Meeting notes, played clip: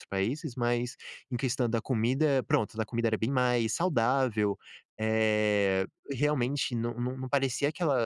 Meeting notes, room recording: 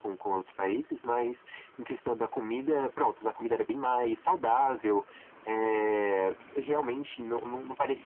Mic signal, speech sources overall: echo only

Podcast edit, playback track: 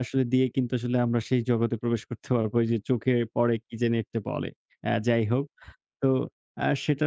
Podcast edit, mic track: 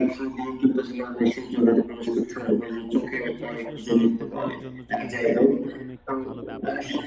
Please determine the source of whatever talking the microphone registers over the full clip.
both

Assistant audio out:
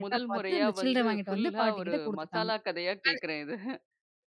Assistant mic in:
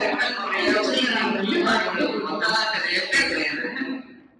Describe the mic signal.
both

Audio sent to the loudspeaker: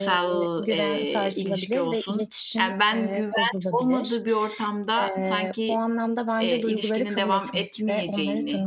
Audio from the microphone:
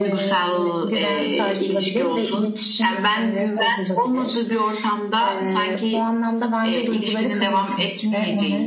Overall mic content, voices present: echo only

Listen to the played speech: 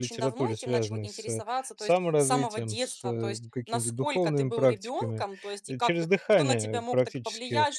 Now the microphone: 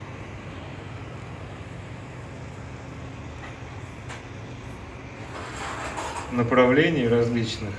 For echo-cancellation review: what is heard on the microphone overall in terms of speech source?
user only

